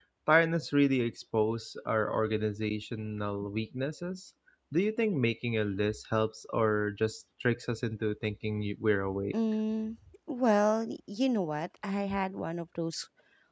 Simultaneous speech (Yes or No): No